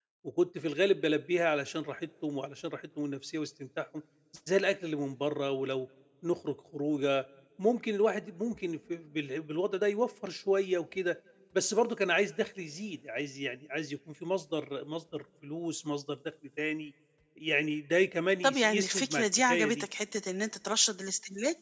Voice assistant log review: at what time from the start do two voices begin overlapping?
18.4 s

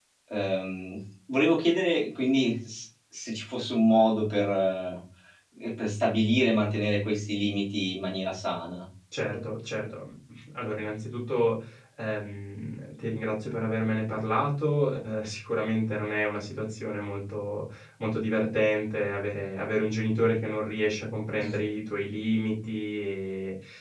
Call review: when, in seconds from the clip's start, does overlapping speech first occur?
none

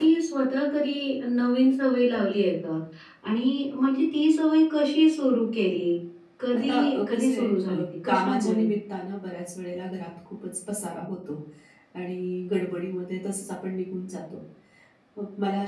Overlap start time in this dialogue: 6.6 s

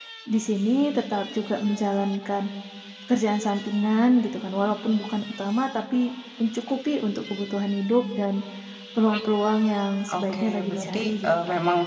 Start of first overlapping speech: 10.1 s

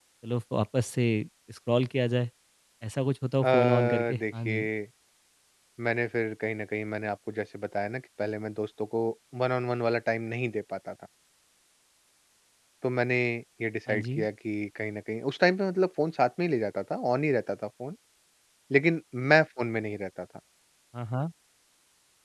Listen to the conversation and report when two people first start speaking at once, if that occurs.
3.4 s

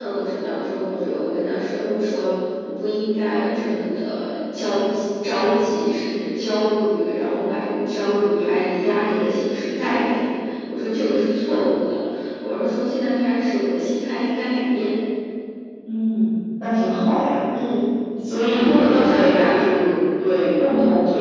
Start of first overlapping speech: 18.5 s

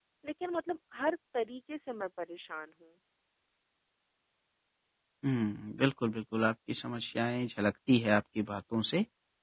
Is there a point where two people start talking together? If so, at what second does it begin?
none

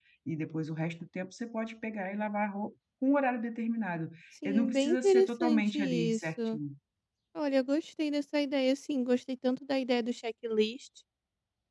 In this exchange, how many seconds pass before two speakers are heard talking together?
4.4 s

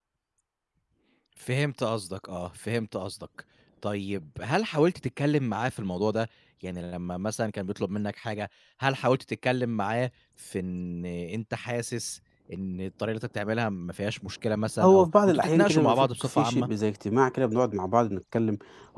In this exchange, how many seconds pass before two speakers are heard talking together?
14.8 s

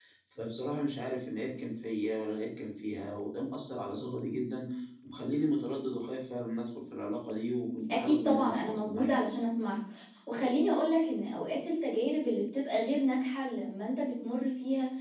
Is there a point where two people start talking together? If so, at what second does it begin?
7.9 s

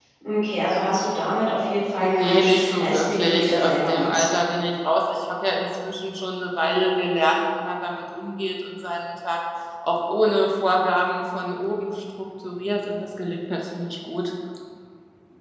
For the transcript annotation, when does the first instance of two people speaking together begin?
2.0 s

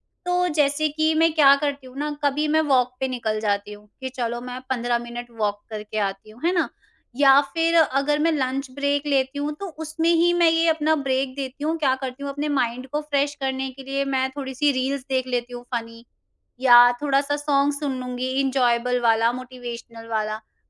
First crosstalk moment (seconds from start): none

